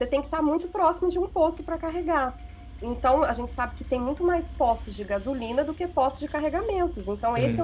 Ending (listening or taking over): listening